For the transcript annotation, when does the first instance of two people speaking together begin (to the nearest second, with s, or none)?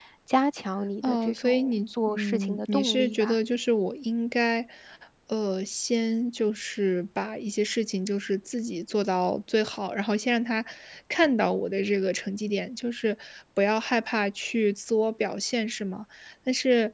1 s